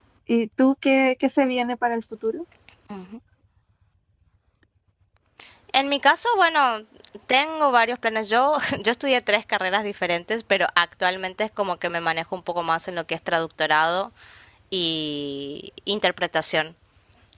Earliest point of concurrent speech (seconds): none

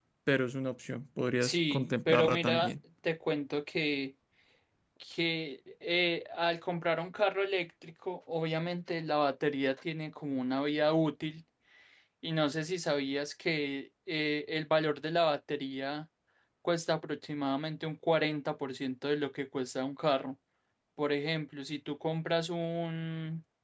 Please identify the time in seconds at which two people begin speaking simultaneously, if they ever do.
1.4 s

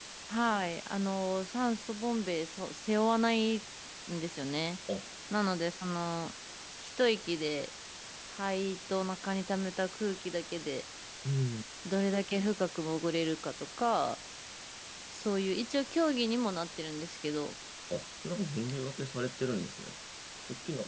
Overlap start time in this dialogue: none

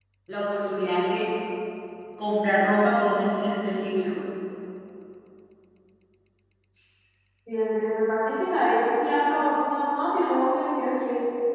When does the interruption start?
none

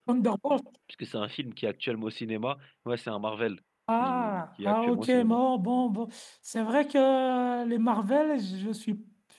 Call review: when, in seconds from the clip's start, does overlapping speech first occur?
3.9 s

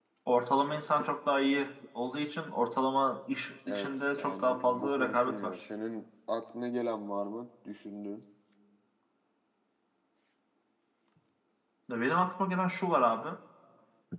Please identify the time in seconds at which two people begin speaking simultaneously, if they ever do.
3.7 s

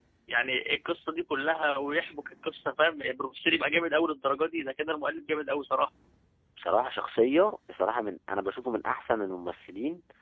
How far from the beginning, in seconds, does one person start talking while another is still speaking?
none

